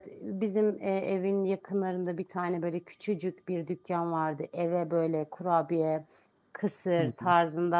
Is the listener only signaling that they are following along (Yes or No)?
Yes